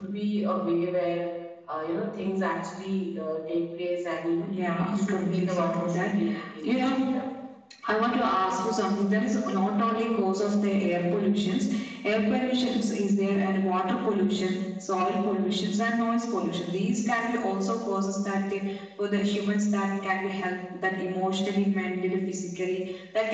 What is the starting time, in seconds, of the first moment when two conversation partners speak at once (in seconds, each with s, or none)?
4.4 s